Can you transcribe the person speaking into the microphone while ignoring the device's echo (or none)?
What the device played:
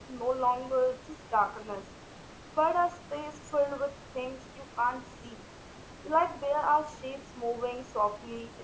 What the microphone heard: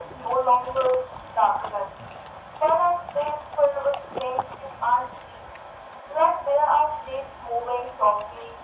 none